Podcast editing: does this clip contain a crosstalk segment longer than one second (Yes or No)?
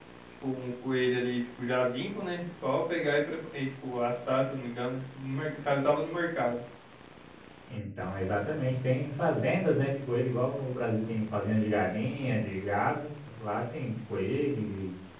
No